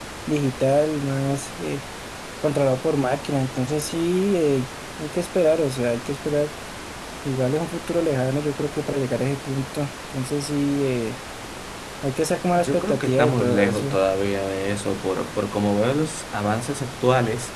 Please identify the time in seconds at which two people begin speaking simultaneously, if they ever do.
12.6 s

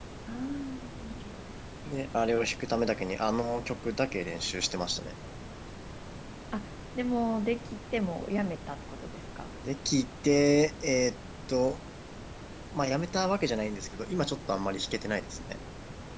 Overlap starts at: none

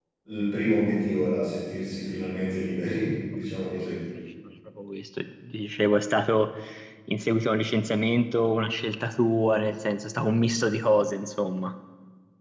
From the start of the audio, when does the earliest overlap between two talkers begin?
none

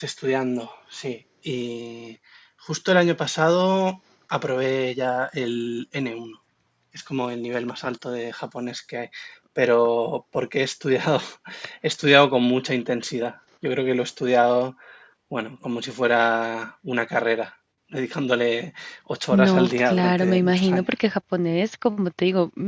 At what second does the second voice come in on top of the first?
19.3 s

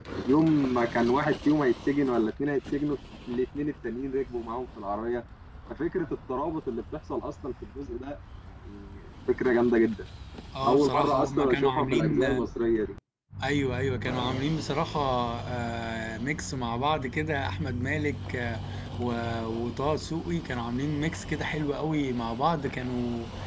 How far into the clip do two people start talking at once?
10.7 s

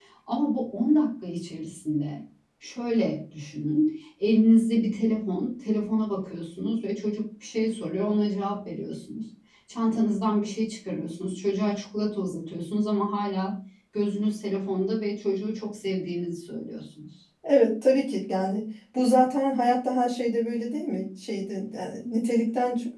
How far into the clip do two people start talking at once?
none

